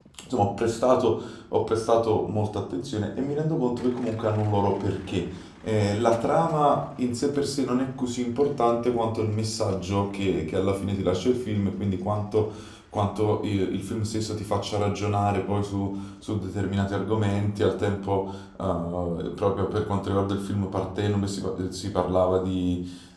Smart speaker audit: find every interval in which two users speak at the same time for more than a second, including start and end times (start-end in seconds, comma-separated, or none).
none